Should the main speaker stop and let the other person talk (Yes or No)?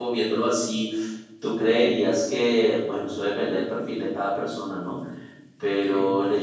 No